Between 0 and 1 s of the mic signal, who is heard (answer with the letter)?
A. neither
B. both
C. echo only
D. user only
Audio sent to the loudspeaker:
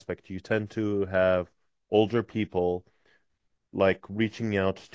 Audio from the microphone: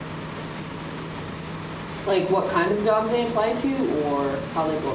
A